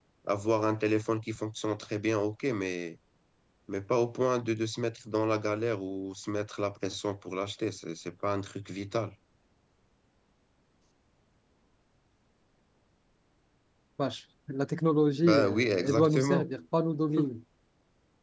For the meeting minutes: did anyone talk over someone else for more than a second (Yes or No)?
Yes